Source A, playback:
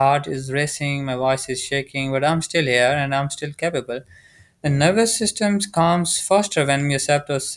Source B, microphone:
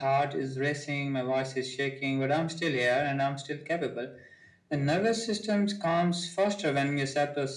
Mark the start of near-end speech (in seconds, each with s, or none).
none